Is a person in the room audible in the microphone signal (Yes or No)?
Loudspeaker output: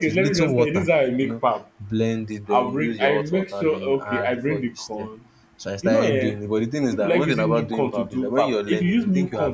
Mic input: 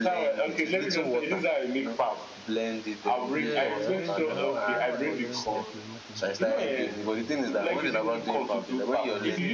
Yes